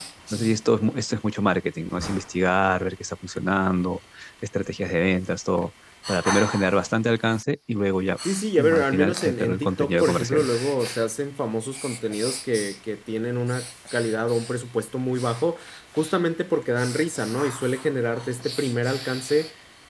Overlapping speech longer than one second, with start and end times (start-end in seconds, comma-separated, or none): 8.6-10.5